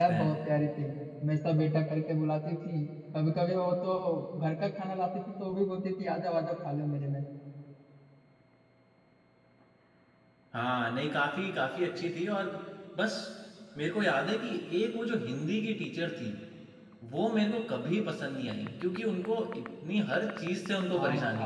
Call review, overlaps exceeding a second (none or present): none